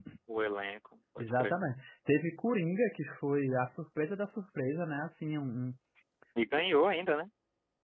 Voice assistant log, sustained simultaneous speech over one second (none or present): none